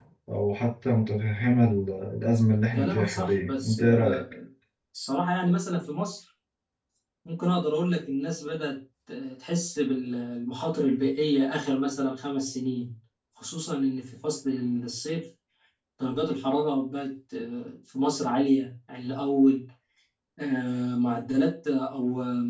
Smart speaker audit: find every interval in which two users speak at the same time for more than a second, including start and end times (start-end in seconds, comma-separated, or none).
2.7-4.2